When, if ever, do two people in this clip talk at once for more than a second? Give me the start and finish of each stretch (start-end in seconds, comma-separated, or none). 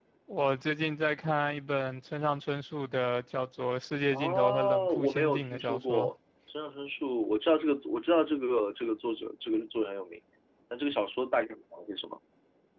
4.1-6.1